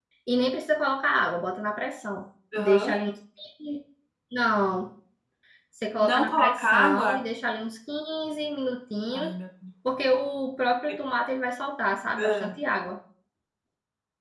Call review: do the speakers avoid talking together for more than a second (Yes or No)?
No